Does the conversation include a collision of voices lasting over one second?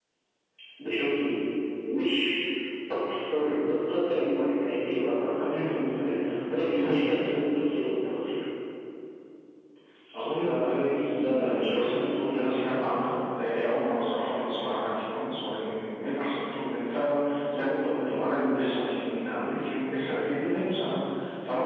Yes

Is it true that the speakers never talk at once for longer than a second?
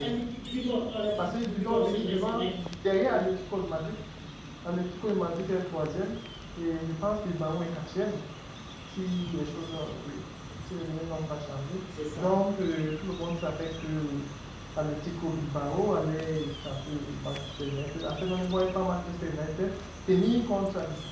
No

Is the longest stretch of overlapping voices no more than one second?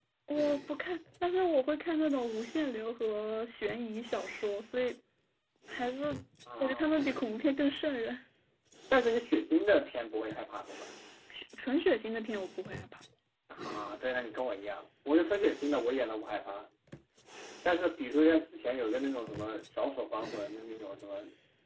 Yes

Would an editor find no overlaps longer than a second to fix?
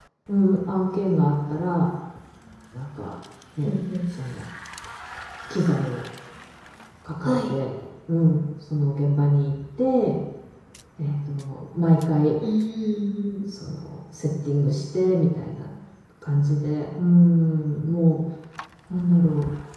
Yes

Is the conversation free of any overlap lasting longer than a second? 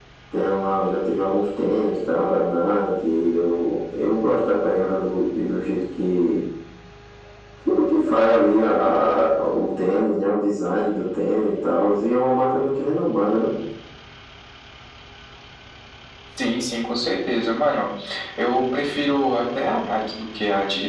Yes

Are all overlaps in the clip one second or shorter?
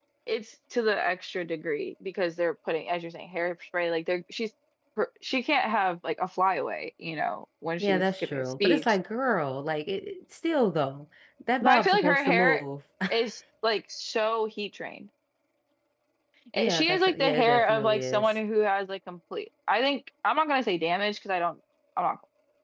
No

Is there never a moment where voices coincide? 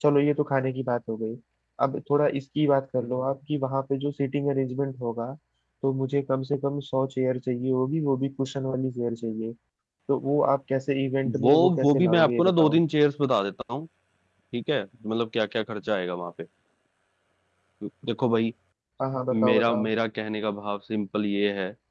No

